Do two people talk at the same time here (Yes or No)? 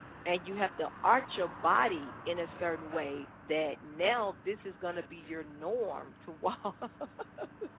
No